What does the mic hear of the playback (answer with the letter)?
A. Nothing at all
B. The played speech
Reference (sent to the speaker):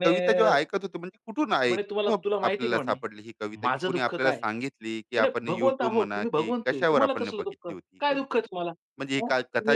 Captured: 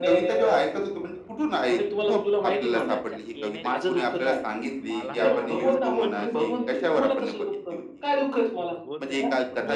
B